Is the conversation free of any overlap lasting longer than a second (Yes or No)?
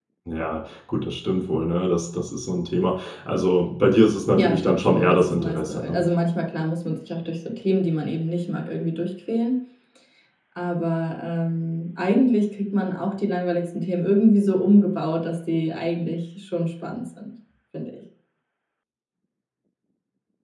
No